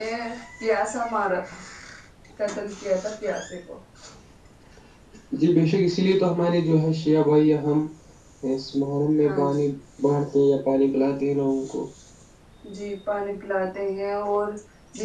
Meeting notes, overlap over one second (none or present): none